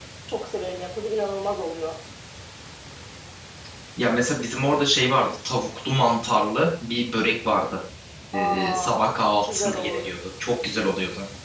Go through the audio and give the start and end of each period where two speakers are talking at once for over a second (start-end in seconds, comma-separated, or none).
8.3-10.1